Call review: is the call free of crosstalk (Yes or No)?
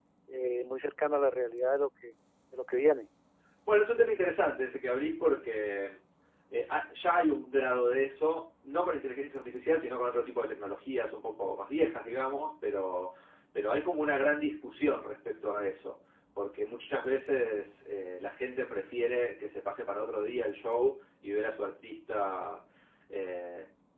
Yes